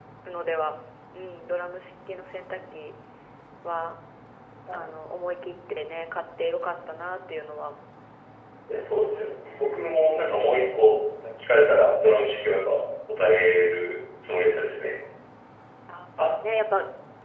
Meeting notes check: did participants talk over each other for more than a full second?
Yes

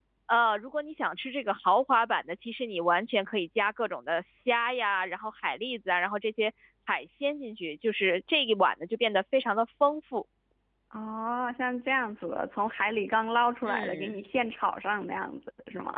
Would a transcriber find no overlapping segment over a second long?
Yes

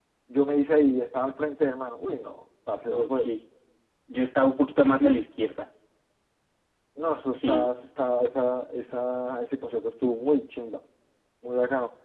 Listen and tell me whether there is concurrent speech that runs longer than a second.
No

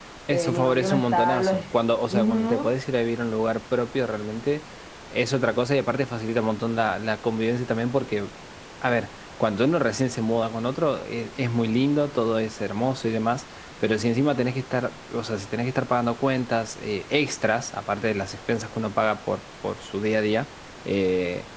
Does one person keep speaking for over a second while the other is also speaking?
Yes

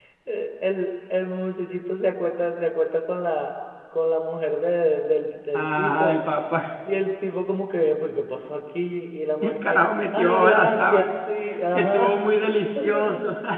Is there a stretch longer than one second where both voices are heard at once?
Yes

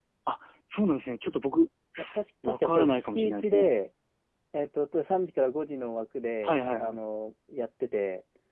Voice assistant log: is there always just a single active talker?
No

